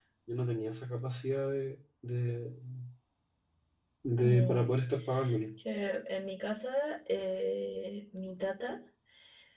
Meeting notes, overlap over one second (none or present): none